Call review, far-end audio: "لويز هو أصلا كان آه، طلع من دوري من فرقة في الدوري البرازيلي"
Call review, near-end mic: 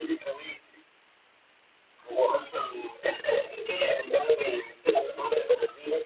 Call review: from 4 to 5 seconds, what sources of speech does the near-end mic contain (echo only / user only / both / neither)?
echo only